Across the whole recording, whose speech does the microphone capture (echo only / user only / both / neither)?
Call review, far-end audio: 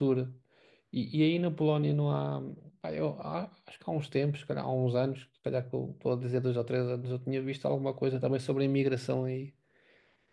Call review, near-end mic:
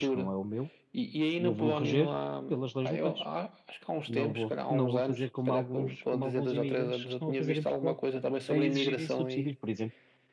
both